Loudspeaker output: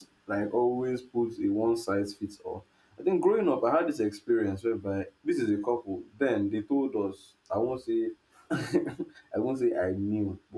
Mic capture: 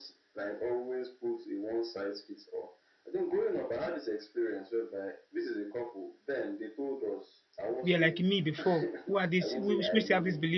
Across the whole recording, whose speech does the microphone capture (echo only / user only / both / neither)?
both